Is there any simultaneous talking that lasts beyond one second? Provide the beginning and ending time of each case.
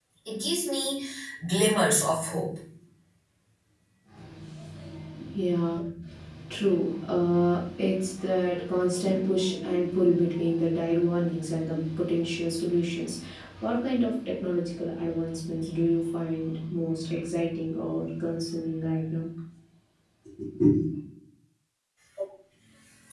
none

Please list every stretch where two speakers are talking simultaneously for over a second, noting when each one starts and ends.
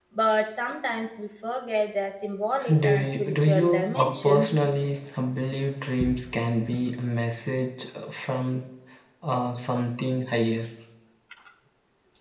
2.8-4.6

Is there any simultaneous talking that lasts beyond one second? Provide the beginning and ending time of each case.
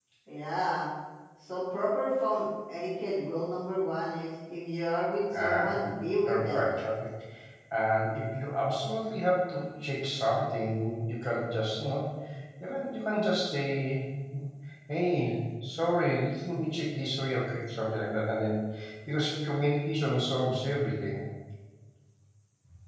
none

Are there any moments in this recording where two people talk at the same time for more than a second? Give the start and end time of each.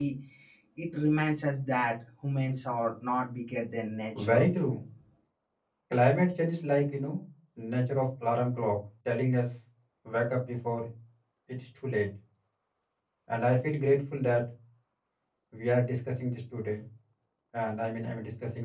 none

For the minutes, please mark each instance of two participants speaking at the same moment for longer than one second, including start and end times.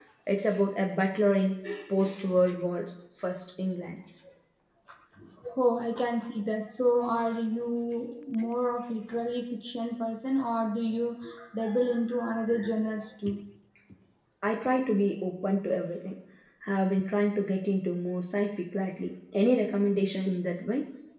none

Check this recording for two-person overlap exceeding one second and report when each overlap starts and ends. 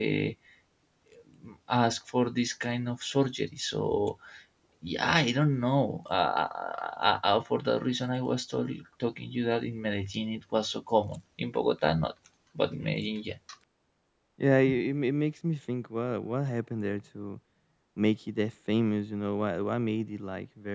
none

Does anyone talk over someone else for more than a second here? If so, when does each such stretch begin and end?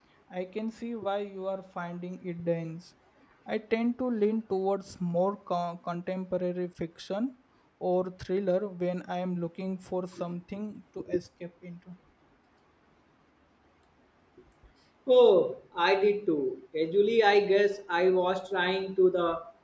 none

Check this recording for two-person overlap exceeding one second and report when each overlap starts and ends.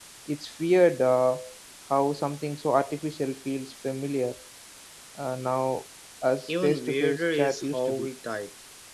6.5-8.1

